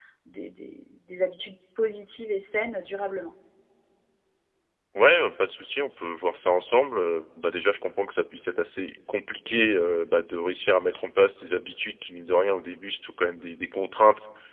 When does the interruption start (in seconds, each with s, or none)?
none